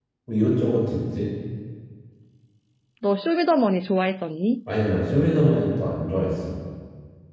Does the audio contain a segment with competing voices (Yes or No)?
No